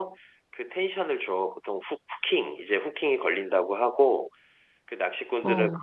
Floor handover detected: No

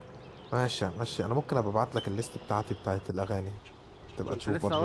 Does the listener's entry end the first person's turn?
Yes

